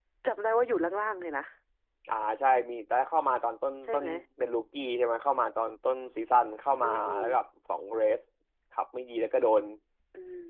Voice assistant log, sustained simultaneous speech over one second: none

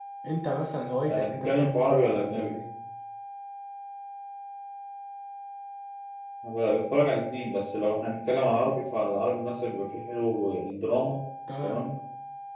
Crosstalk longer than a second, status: present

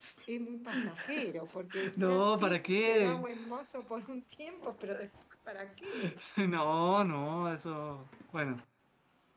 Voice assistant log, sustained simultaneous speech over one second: present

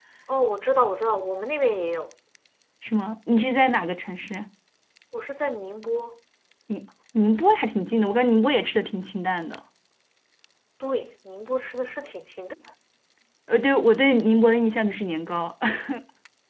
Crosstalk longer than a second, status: none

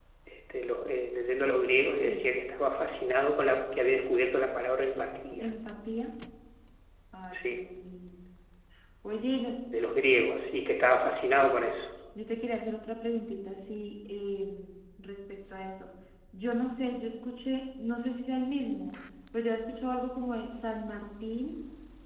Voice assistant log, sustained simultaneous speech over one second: none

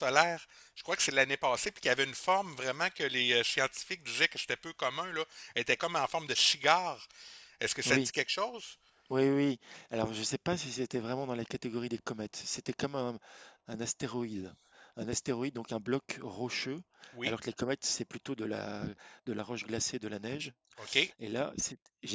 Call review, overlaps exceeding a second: none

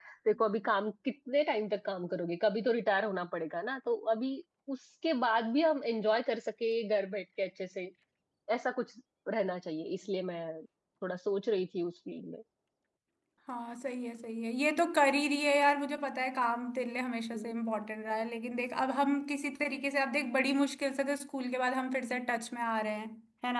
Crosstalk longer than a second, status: none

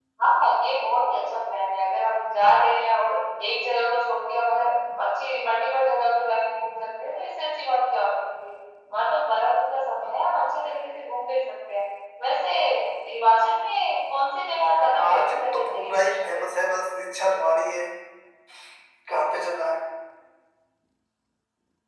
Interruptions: present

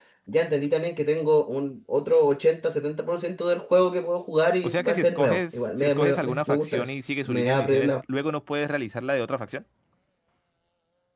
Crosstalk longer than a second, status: present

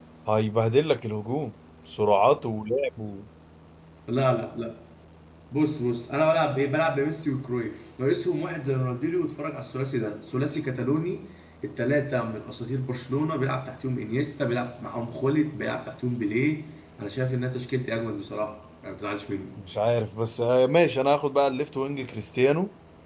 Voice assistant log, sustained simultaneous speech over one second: none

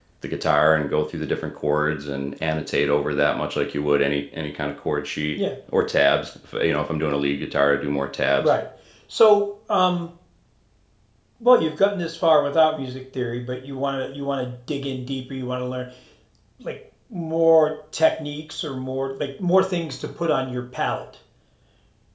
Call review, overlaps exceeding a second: none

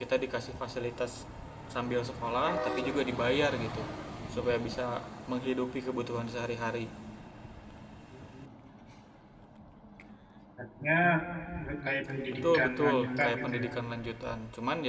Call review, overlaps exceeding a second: present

